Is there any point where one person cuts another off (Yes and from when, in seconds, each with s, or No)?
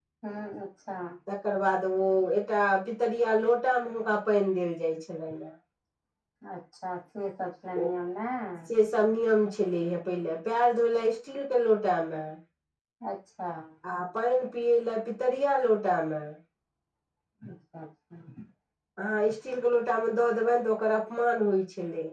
No